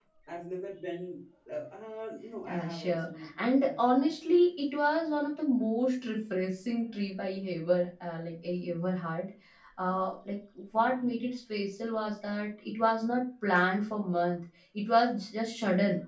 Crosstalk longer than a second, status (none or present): present